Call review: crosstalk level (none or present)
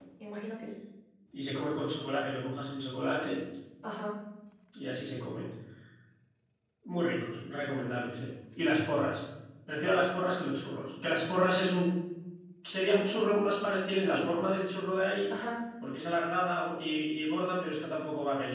none